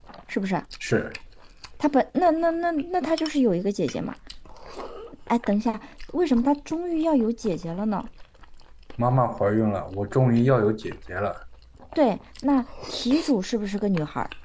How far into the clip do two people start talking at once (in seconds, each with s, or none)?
none